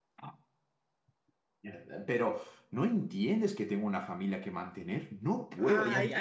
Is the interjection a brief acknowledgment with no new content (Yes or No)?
No